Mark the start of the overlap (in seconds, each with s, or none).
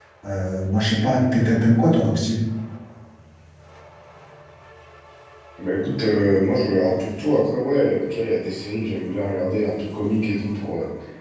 none